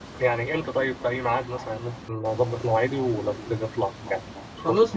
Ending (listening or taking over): taking over